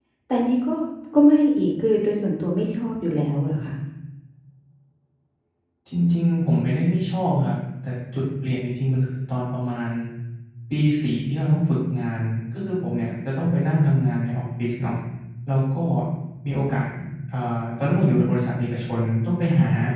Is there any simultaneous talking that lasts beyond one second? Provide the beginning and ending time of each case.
none

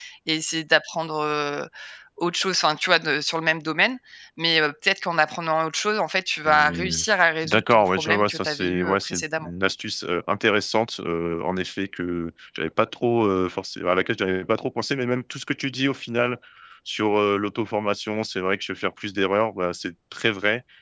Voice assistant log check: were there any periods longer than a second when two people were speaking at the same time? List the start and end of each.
7.4-9.5

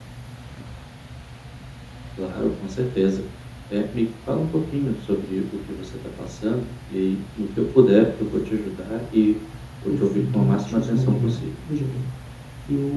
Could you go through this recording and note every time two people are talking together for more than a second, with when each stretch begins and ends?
9.9-11.5

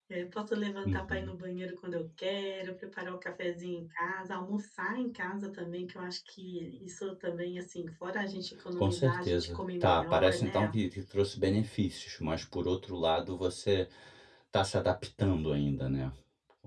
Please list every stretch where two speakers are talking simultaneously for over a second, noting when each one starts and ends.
8.7-10.7

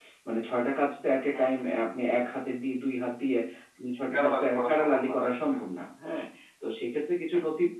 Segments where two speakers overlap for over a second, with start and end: 4.1-5.6

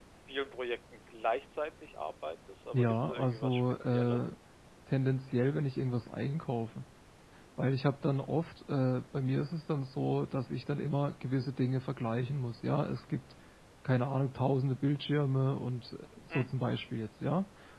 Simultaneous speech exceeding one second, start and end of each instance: 2.7-4.3

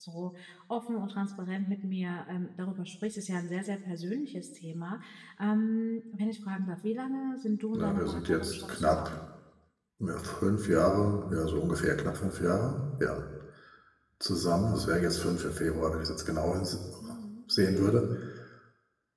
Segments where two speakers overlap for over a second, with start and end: 7.7-9.2

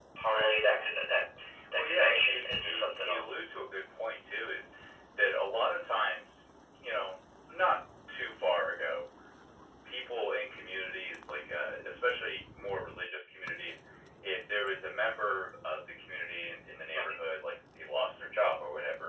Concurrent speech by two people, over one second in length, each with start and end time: 1.8-3.3

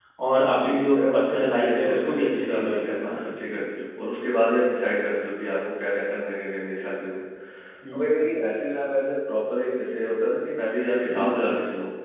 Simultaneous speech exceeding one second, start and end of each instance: 0.5-3.6

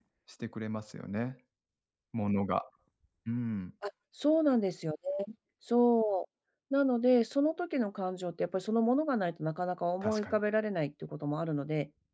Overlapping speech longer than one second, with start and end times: none

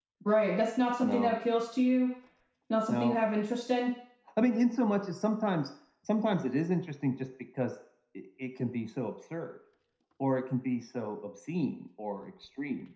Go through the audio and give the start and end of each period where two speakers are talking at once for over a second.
none

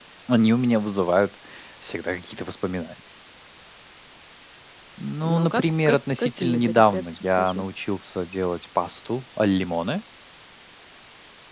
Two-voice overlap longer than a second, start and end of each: 5.2-7.7

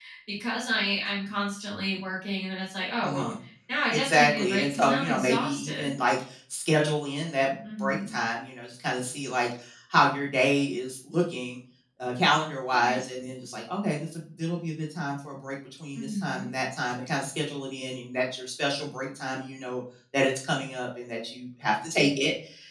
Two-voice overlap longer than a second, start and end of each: 3.9-5.9

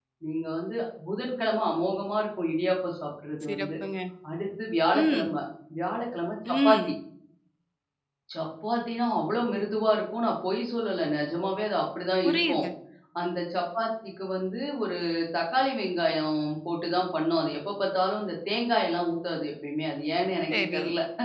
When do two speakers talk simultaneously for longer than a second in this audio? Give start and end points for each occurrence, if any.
none

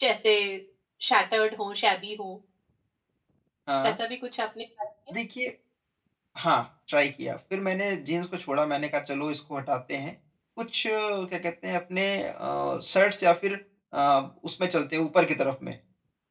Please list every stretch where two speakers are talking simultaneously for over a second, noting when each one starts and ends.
none

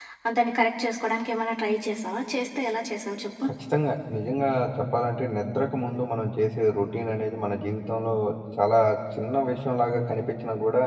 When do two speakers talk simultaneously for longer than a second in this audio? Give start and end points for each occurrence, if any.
none

